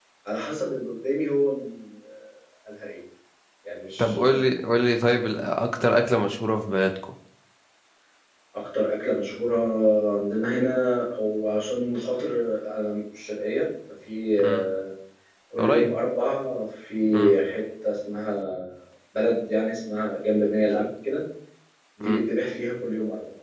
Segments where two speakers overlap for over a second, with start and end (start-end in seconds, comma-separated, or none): none